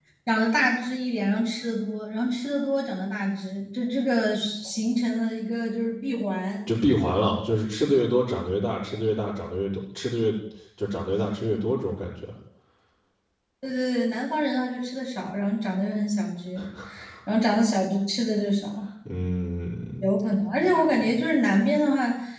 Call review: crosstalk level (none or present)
none